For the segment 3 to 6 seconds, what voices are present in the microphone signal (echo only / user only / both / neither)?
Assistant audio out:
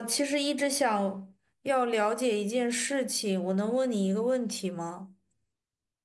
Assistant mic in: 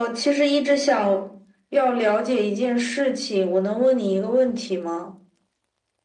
echo only